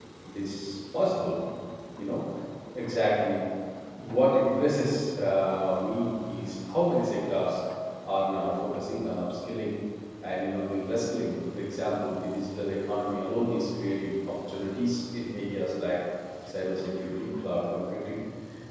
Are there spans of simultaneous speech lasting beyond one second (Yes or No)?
No